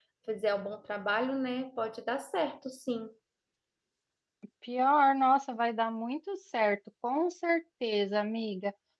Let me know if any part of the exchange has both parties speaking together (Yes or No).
No